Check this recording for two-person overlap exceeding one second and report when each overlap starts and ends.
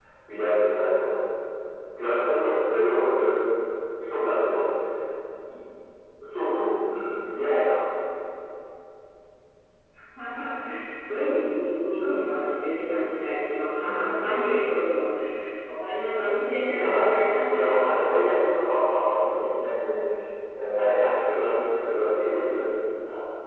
16.7-18.1

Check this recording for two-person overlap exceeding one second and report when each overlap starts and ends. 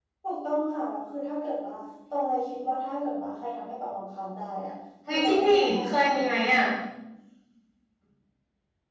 5.1-6.6

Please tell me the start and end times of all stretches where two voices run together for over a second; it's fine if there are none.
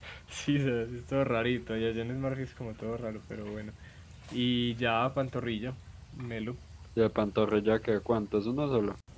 none

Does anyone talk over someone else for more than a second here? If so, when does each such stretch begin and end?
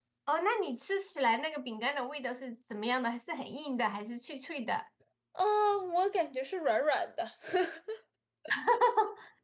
none

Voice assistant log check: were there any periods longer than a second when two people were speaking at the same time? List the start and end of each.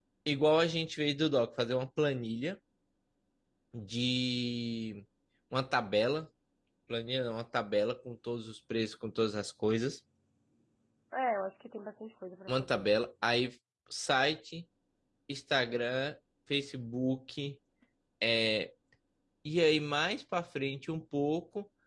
none

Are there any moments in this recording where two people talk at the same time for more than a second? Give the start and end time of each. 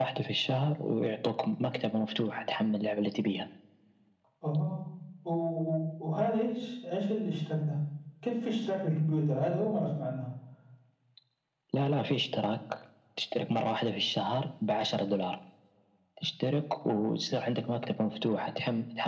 none

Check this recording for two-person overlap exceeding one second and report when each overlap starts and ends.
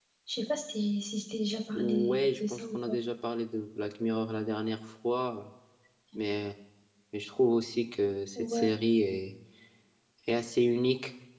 1.8-3.0

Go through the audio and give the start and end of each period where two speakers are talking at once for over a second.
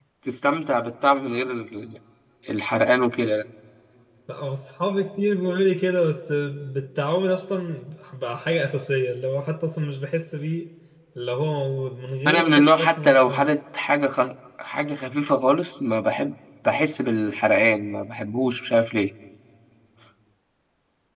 12.3-13.5

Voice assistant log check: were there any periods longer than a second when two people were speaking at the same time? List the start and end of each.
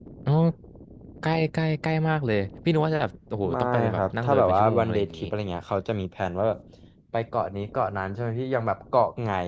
3.5-5.2

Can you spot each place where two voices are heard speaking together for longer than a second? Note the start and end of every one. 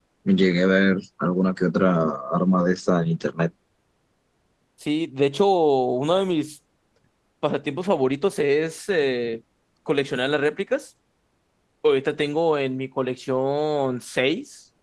none

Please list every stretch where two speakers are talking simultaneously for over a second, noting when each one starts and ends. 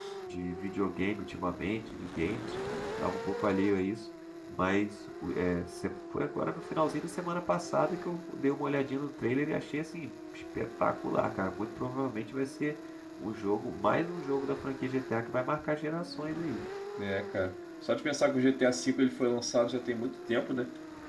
none

